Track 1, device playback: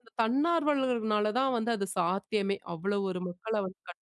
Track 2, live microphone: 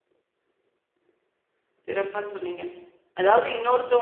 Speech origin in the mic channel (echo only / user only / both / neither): user only